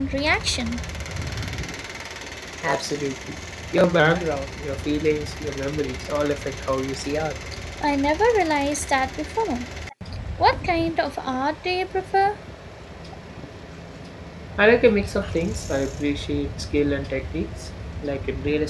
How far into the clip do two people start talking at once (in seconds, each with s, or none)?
none